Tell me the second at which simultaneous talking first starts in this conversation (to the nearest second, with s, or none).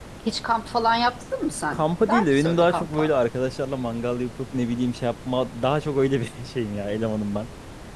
2 s